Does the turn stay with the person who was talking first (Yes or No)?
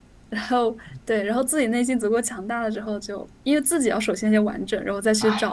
No